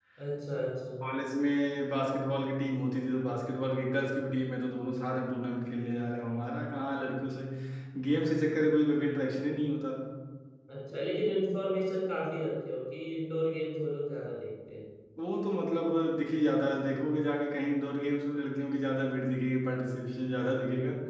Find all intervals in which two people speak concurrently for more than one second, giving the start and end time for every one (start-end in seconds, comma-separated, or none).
none